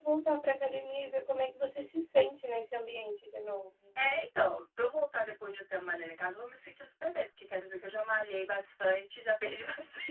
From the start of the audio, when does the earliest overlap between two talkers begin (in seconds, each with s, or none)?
none